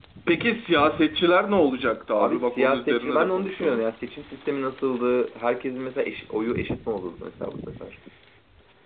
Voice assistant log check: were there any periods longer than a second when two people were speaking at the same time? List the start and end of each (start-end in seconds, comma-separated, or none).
2.2-3.8